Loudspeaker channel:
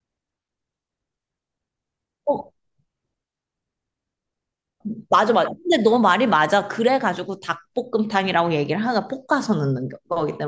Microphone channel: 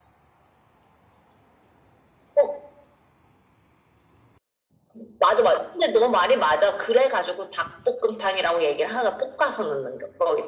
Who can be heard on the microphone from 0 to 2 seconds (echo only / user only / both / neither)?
neither